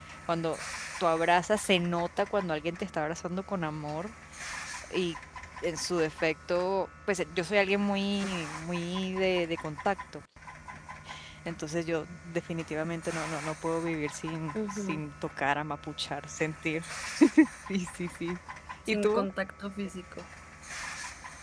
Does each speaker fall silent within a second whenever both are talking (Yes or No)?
Yes